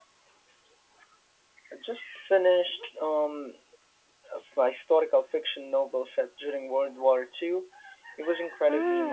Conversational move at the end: taking over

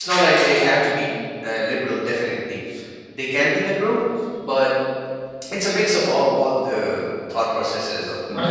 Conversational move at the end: taking over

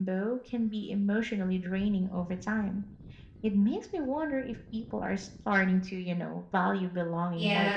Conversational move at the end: taking over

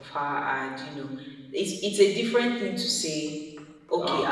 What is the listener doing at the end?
listening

